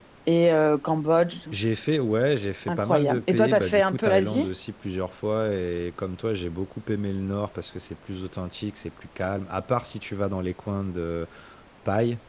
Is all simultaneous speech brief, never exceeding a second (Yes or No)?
No